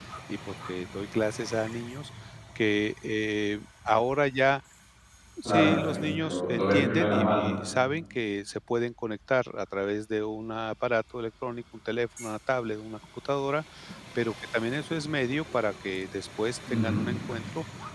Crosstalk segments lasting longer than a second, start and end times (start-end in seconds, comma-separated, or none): 5.5-7.5